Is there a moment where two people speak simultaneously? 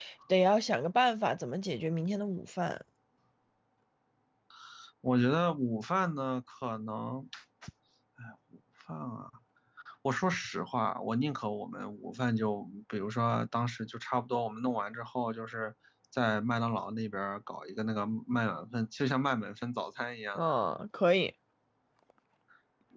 No

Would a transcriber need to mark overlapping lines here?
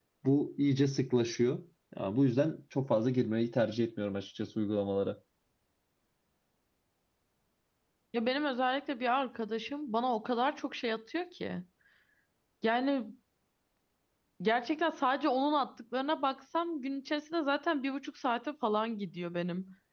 No

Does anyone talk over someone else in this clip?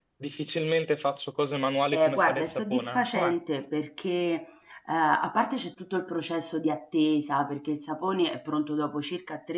Yes, from 1.9 s

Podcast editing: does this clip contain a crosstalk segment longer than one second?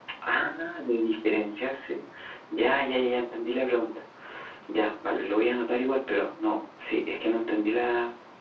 No

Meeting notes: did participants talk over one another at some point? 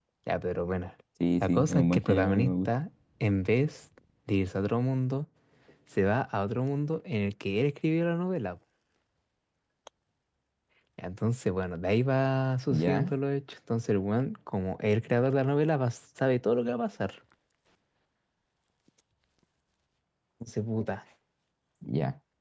Yes, from 1.4 s

